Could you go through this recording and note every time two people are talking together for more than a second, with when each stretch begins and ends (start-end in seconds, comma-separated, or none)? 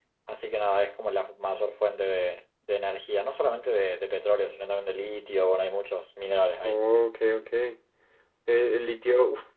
none